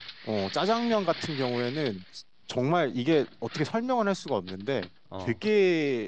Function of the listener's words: listening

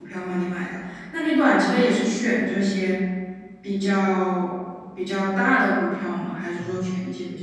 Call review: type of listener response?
taking over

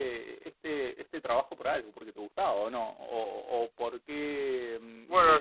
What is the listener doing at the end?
taking over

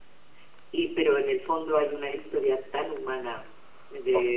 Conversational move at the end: listening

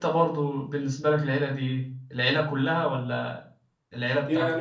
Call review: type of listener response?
taking over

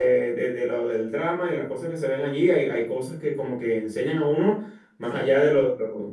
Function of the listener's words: listening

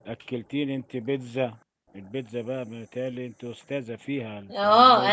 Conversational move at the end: taking over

